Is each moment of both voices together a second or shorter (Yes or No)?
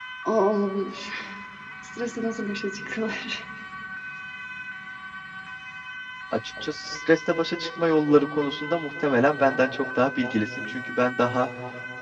Yes